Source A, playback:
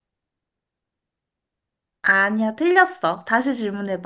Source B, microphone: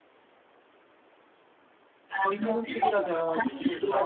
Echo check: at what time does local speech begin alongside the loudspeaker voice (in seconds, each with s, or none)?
2.2 s